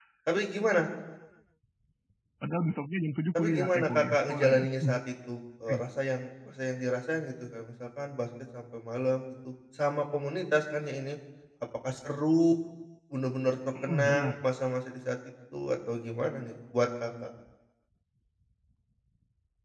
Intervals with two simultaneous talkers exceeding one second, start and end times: 3.4-5.0

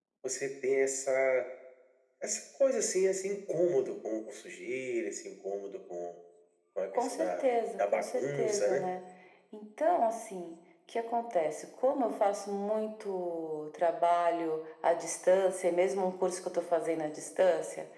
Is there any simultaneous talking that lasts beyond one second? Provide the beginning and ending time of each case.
7.0-8.9

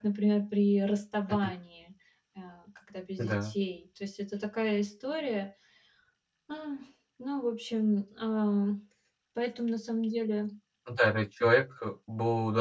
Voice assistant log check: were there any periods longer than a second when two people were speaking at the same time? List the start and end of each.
none

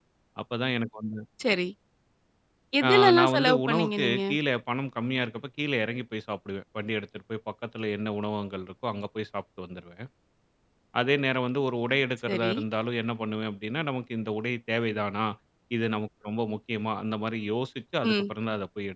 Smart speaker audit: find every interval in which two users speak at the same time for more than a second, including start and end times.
2.9-4.2

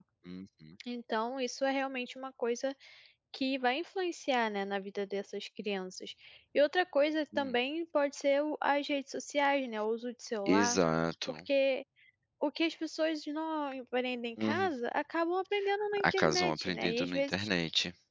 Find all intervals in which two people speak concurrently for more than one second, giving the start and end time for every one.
16.0-17.5

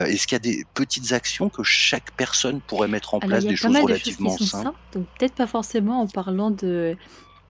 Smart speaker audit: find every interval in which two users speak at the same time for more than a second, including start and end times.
3.3-4.7

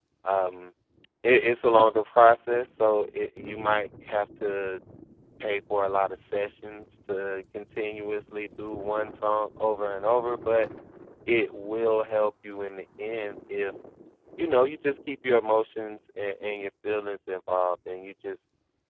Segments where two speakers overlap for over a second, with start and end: none

